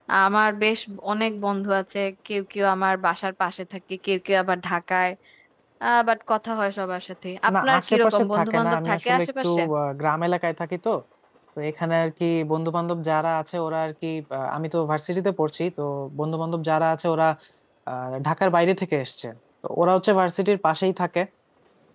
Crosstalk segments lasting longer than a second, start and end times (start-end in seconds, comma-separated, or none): 7.6-9.4